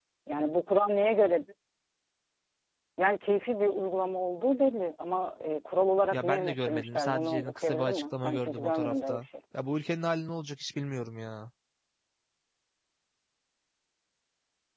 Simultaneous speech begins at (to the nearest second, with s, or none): 6 s